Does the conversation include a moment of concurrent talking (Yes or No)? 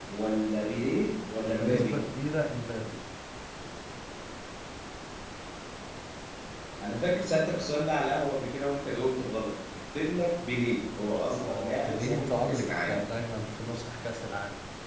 Yes